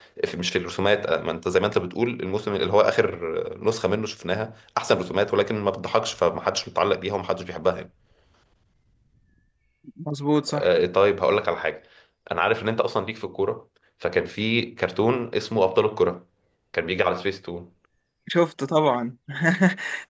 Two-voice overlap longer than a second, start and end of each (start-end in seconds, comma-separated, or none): none